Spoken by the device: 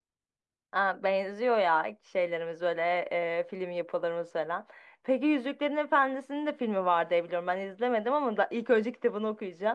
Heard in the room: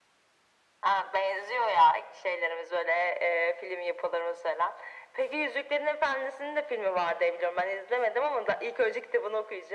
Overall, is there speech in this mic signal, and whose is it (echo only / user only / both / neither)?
echo only